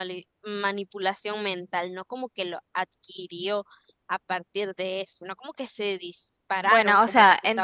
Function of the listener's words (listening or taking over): taking over